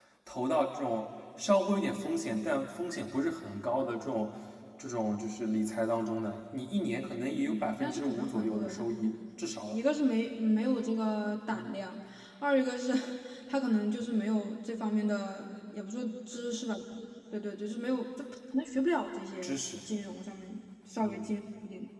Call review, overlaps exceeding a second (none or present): present